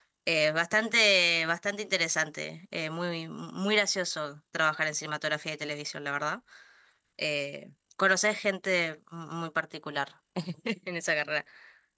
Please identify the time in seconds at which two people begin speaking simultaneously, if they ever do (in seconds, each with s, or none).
none